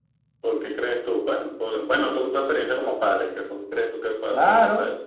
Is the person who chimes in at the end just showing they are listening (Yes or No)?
No